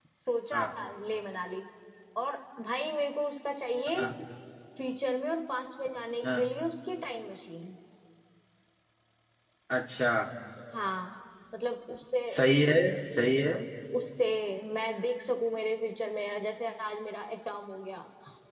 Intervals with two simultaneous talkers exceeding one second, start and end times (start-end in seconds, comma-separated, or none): none